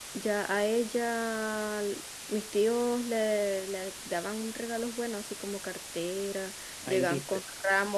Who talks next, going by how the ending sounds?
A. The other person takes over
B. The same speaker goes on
B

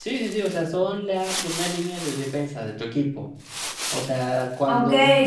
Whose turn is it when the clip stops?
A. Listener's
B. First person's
A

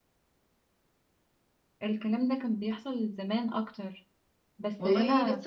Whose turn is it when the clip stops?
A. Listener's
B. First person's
A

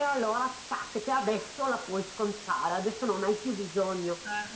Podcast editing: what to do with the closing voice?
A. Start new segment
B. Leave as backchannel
B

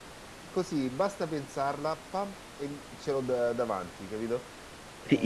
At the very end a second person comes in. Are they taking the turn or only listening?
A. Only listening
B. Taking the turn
B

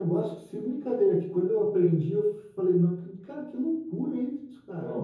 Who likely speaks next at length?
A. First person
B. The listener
A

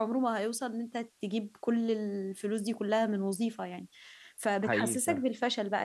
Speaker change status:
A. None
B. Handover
A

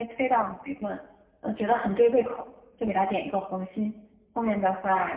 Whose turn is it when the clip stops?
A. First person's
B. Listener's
A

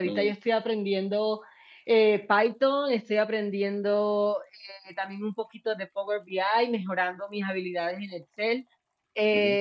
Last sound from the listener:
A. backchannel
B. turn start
A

